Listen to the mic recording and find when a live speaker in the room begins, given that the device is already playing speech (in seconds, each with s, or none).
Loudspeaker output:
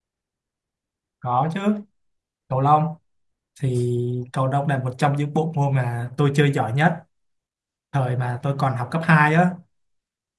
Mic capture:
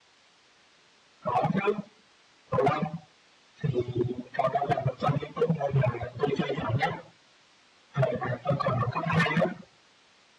none